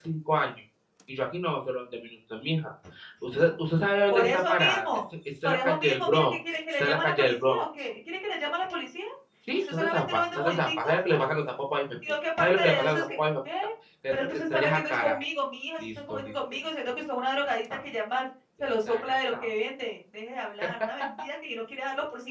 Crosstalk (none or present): present